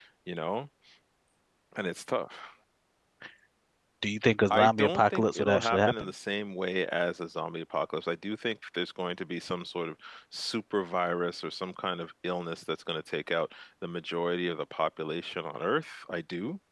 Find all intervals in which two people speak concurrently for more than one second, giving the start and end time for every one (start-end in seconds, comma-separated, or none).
4.5-6.1